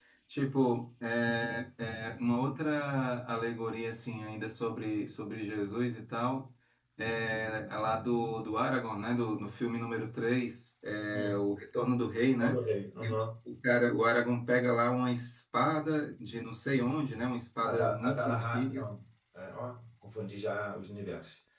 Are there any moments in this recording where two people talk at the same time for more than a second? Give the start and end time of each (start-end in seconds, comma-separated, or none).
17.6-18.8